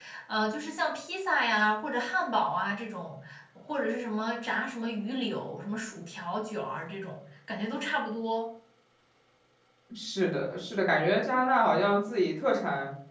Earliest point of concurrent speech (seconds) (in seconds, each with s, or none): none